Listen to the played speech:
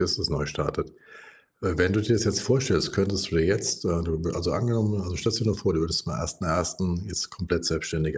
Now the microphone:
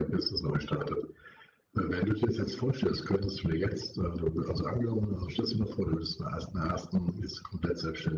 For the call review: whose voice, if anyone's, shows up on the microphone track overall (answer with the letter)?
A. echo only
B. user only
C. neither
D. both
A